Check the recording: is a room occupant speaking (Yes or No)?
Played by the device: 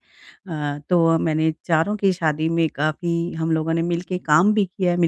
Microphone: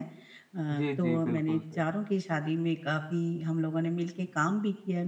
Yes